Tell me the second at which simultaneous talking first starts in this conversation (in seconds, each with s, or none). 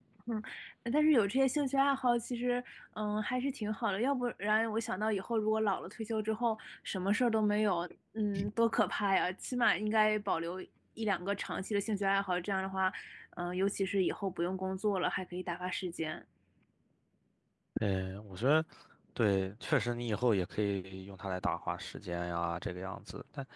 none